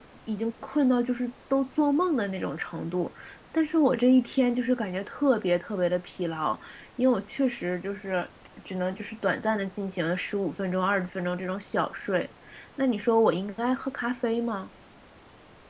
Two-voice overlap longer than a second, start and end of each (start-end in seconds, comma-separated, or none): none